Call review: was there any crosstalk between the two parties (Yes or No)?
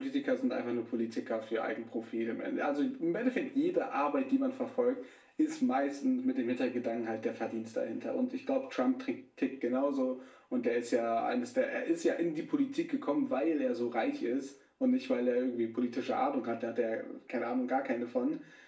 No